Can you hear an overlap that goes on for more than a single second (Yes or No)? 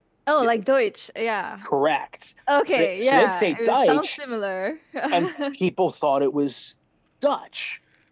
Yes